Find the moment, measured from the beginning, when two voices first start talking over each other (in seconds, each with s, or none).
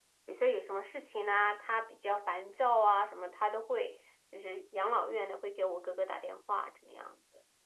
none